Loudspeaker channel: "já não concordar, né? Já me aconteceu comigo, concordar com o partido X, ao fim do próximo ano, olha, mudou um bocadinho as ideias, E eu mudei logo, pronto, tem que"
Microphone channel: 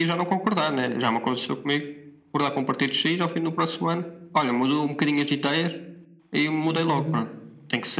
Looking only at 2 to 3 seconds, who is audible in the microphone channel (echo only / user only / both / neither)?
echo only